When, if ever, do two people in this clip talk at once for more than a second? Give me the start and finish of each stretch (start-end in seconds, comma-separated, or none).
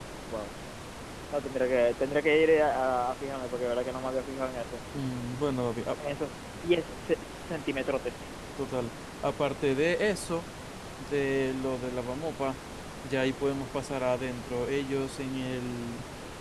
none